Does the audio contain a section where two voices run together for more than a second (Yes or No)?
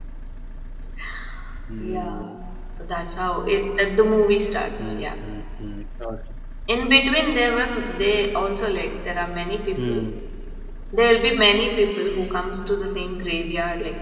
No